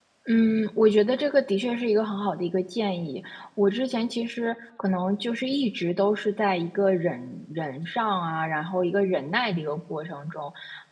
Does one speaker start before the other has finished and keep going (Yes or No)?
No